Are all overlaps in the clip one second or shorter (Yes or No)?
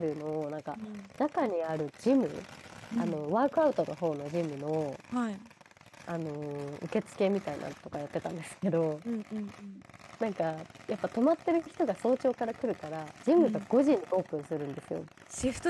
Yes